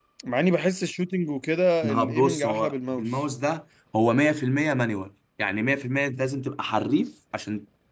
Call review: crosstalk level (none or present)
present